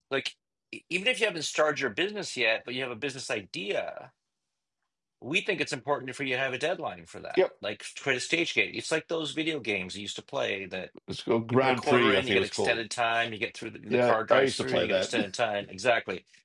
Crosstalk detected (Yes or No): Yes